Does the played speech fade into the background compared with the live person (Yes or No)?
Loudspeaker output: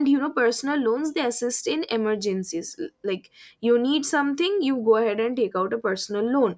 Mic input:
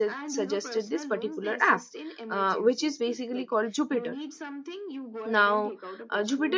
Yes